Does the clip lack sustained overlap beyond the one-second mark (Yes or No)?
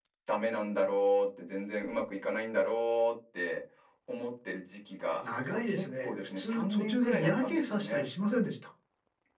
No